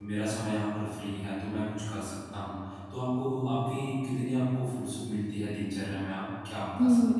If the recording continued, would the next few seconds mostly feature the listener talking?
Yes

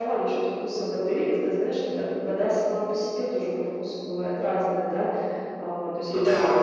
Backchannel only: Yes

